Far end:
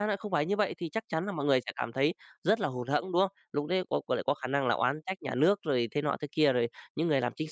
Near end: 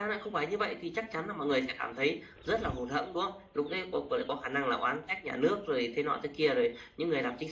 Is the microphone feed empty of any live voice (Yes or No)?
Yes